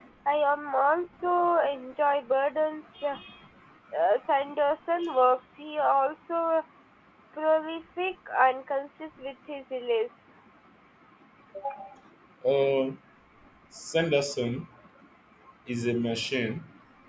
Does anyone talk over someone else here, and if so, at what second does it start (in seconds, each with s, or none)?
none